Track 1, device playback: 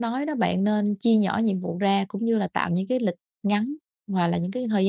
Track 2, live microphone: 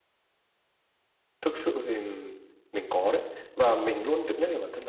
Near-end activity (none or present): present